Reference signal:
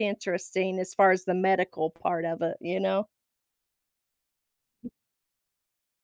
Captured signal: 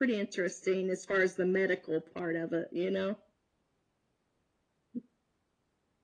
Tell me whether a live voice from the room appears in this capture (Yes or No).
No